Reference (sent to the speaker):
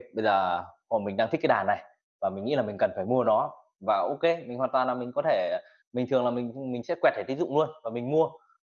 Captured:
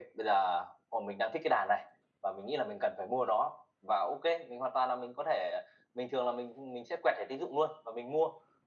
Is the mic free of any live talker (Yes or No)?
Yes